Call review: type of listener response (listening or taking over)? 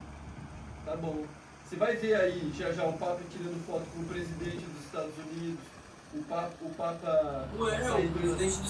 taking over